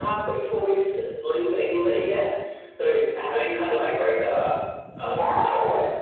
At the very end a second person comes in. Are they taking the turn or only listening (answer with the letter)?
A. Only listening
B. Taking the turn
B